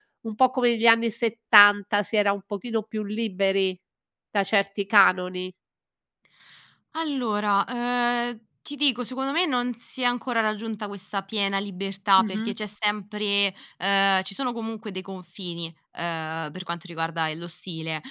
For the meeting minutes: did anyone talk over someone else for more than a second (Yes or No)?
No